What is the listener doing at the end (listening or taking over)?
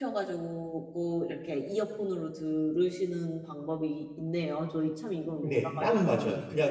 taking over